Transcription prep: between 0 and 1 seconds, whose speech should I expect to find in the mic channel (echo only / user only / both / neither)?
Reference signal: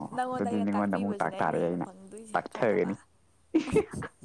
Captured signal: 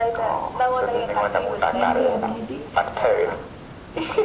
echo only